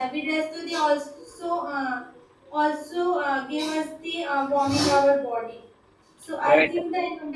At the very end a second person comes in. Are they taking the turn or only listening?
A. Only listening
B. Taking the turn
A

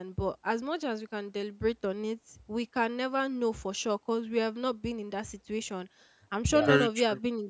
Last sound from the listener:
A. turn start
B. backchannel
B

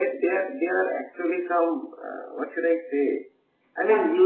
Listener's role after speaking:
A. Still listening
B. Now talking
A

